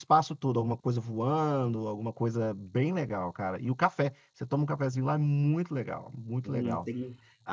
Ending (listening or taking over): taking over